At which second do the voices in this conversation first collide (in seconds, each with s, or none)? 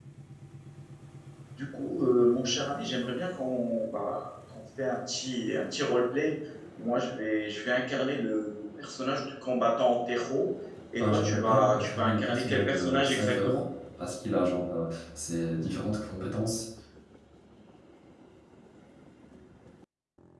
11.0 s